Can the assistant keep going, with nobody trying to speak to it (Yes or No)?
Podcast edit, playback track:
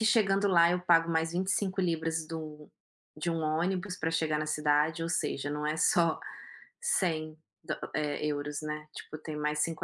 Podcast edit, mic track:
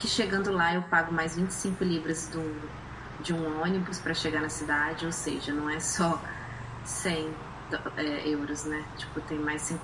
Yes